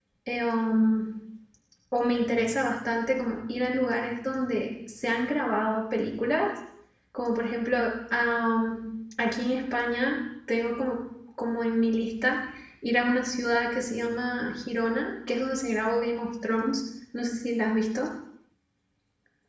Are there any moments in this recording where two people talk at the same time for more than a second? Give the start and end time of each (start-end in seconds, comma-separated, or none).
none